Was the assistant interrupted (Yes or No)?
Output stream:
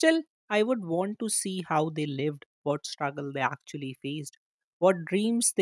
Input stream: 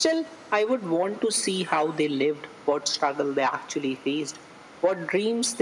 No